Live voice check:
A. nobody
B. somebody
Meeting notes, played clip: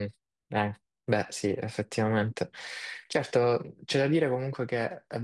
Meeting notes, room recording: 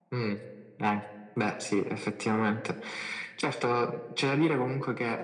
A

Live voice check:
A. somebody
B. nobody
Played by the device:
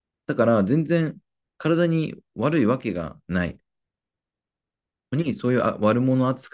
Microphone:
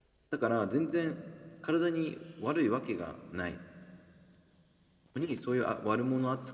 B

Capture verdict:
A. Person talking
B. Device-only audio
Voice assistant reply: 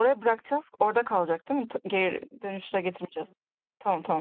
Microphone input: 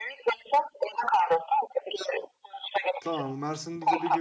A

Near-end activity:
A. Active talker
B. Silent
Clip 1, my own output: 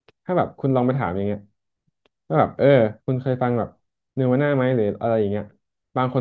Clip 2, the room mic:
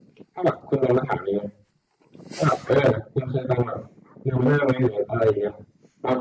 B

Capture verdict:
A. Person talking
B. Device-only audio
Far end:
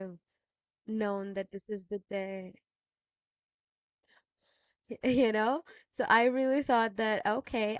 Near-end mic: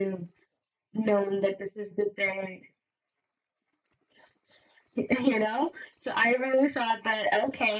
B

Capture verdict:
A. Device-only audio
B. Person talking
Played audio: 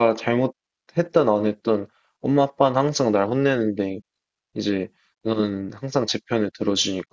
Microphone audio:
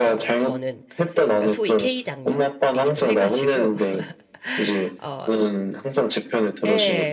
B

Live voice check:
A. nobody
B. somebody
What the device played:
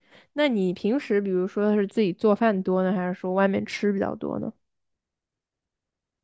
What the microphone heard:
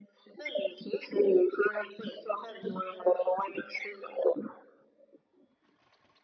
A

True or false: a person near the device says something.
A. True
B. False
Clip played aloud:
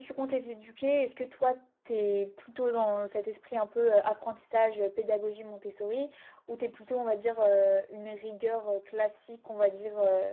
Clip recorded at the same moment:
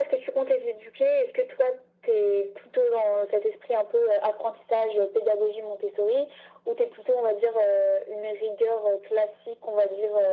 B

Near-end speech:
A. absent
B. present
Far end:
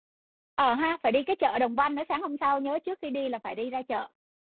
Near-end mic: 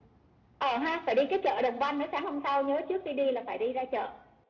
A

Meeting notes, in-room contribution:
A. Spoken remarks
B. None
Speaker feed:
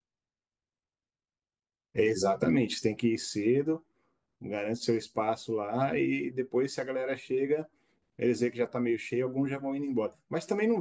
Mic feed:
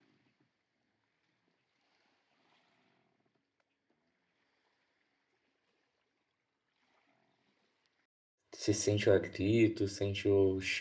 A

